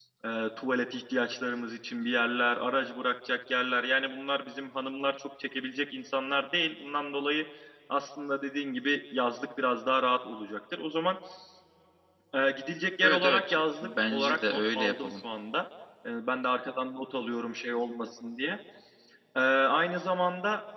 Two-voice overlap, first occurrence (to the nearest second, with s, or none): 13 s